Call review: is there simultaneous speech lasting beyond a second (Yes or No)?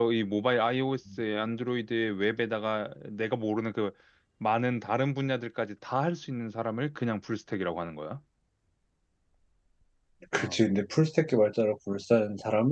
No